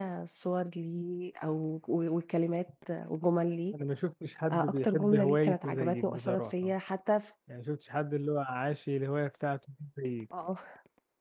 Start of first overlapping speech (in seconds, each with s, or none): 4.5 s